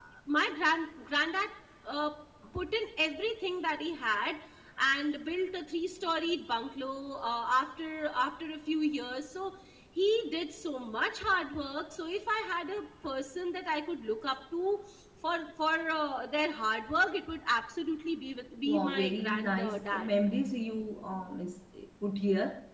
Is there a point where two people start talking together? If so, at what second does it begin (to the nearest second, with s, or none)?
19 s